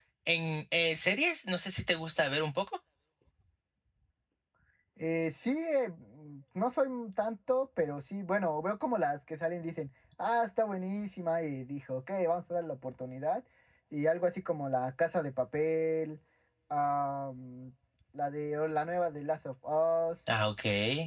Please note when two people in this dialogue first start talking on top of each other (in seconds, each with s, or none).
none